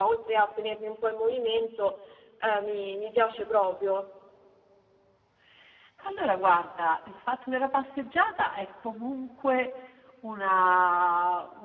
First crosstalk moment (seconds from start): none

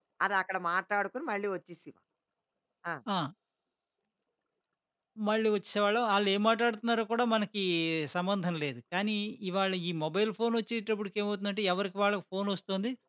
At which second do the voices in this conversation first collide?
none

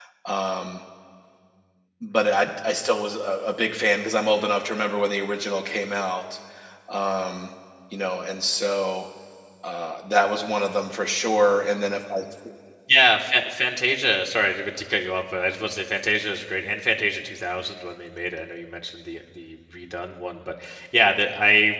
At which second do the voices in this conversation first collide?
none

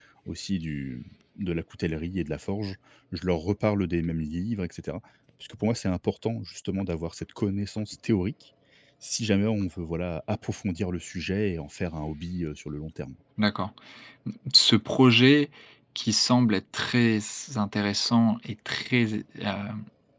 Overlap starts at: none

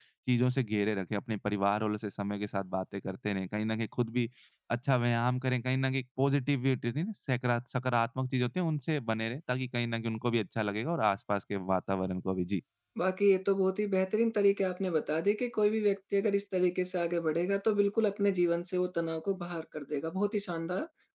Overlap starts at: none

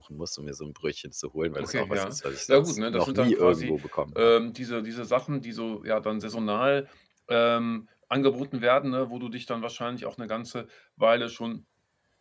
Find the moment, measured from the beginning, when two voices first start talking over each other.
2 s

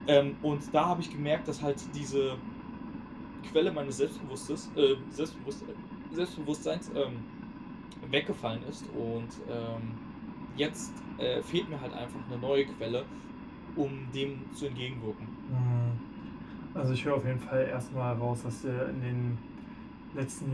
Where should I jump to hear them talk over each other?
none

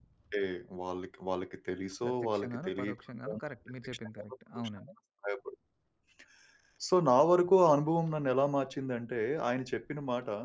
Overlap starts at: 2 s

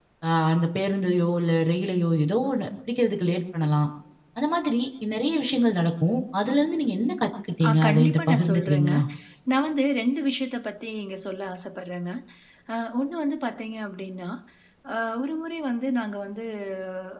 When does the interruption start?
8 s

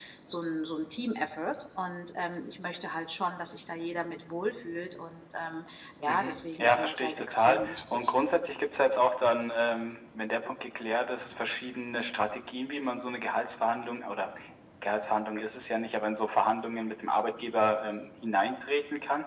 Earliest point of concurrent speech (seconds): 6 s

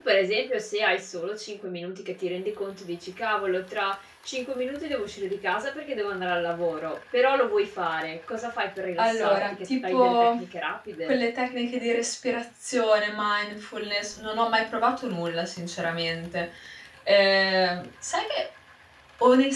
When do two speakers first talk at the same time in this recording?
9 s

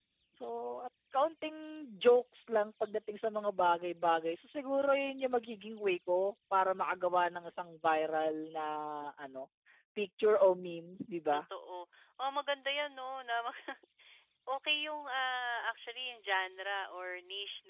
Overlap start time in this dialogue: none

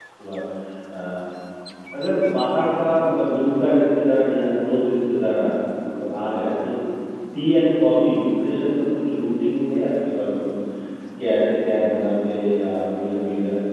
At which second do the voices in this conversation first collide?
none

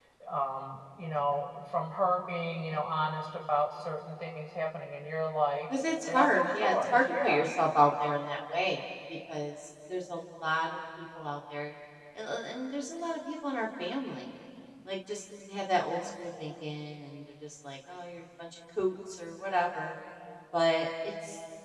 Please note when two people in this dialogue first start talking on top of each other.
6 s

